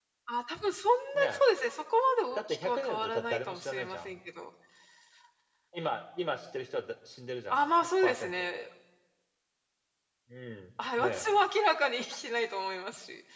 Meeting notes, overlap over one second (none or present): present